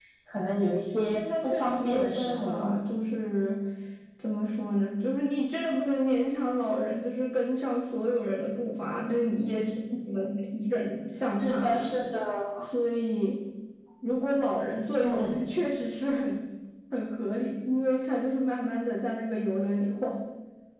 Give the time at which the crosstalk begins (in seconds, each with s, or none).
1.1 s